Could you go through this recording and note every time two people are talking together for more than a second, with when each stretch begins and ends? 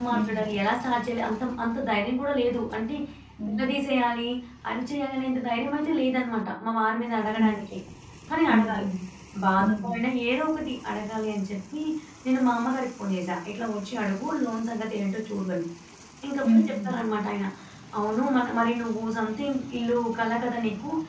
none

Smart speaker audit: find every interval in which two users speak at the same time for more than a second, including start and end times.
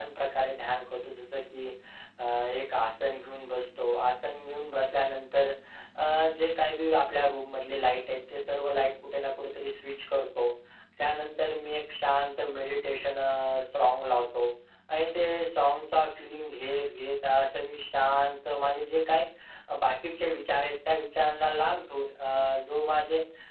none

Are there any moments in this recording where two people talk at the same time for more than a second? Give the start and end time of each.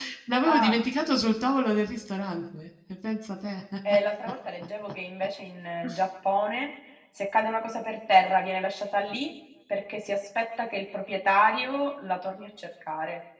none

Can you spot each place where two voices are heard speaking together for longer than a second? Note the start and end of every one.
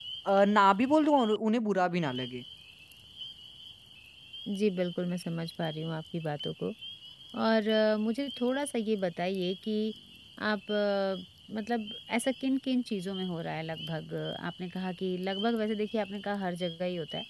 none

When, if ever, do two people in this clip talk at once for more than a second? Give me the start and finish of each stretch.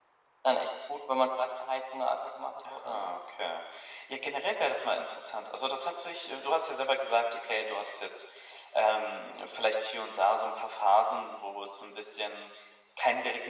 none

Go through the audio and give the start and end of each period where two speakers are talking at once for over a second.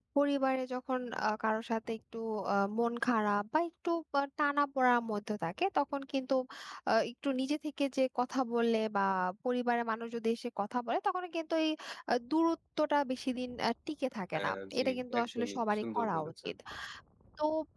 14.3-16.5

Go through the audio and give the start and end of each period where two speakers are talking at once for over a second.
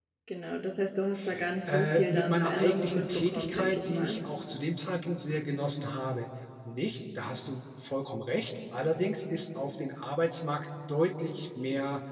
1.7-4.2

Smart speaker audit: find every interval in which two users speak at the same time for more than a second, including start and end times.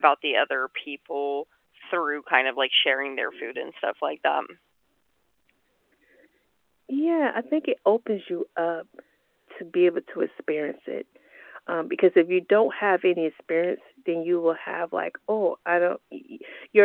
none

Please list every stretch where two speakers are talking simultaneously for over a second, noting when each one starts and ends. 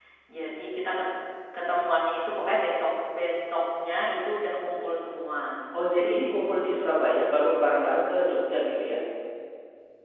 none

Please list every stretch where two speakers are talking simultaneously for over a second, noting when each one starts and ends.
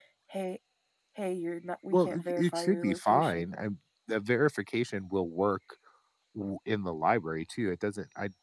1.9-3.5

